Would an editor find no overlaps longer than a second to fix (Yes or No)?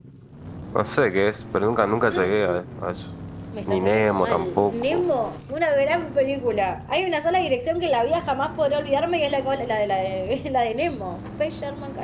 No